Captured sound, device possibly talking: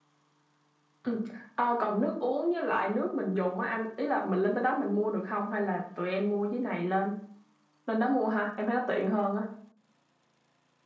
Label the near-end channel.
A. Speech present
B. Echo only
B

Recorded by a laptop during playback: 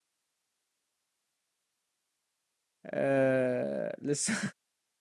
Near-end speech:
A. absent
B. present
B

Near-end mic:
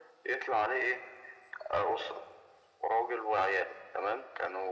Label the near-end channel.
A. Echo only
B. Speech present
A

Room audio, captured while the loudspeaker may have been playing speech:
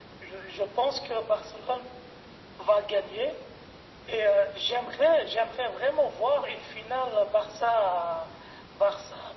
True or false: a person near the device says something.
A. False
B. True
A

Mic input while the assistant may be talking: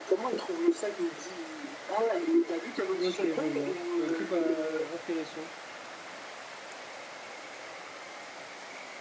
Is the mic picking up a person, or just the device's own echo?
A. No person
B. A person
B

